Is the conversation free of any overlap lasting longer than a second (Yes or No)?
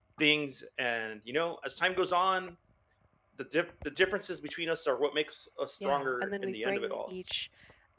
No